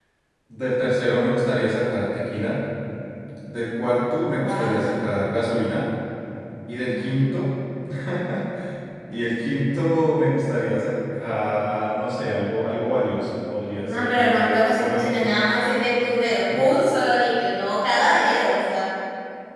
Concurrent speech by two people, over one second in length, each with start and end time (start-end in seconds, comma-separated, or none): 13.8-15.3